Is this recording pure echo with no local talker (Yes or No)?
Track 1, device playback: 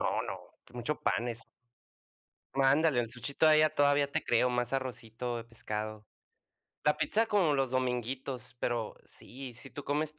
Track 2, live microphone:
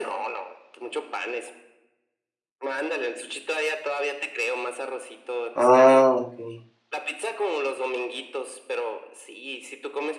No